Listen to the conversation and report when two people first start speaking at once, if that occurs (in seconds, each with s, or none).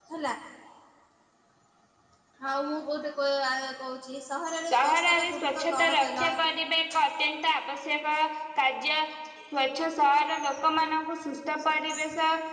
4.7 s